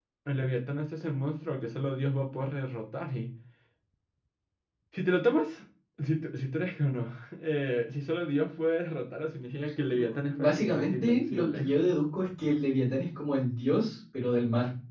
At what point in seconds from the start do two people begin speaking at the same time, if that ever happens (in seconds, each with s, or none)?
9.9 s